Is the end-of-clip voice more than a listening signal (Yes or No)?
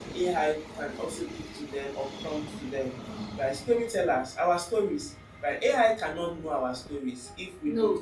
No